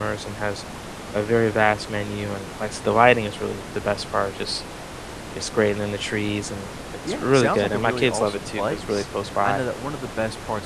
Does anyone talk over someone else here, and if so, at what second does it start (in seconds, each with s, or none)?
7.0 s